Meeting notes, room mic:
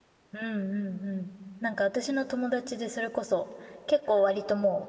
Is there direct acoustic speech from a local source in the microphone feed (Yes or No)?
Yes